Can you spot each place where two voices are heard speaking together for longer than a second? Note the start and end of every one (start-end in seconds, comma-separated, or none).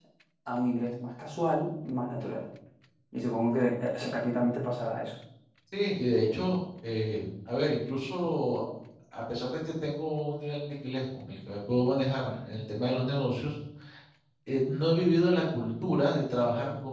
none